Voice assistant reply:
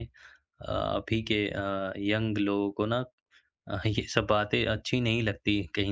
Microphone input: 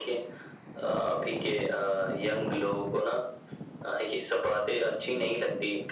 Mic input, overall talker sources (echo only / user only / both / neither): echo only